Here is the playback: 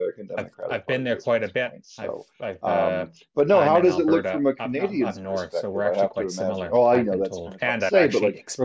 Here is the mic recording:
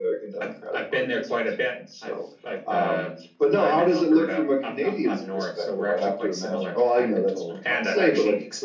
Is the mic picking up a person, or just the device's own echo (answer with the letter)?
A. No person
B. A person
A